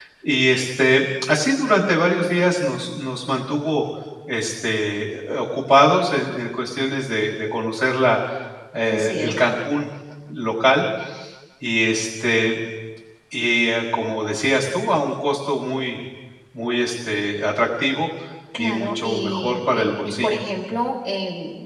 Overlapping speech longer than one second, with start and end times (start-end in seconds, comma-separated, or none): 18.6-20.4